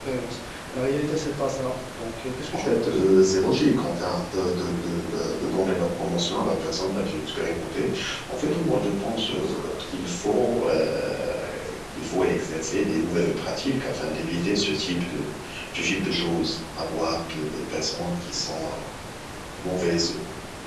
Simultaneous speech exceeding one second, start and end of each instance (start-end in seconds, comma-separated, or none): none